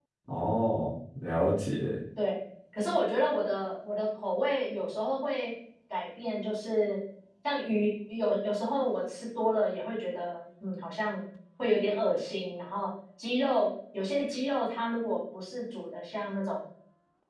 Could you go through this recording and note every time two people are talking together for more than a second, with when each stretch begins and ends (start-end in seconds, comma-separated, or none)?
none